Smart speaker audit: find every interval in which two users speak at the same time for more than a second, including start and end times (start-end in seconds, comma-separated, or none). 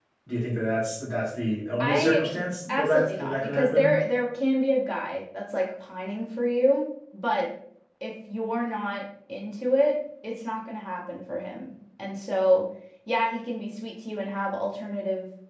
2.7-3.9